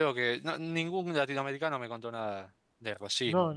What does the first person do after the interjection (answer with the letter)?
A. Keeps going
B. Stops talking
B